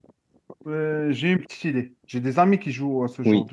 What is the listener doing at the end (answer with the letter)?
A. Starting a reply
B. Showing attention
A